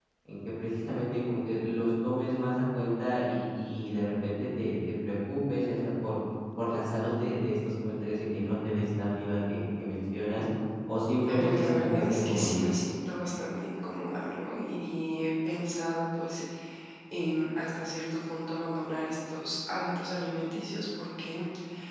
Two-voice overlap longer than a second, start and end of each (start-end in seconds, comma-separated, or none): 11.4-12.7